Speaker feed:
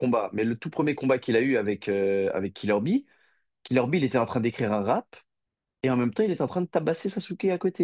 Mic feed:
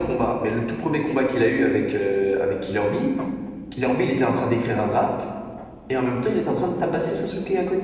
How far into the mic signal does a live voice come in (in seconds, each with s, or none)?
none